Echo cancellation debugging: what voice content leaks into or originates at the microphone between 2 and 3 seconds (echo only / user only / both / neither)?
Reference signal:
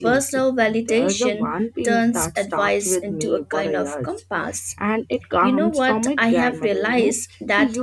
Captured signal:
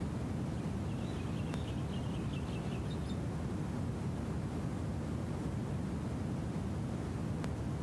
neither